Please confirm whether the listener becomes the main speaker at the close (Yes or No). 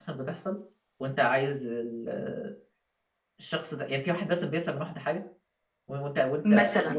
No